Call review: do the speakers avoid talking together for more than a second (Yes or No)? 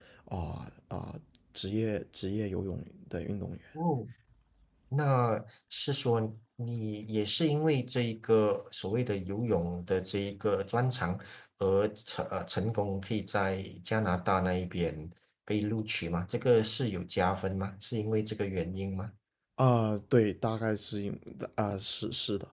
Yes